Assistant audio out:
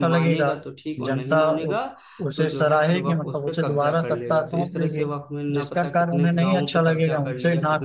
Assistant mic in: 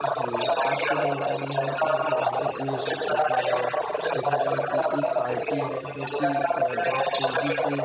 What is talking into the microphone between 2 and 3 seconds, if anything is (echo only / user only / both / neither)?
both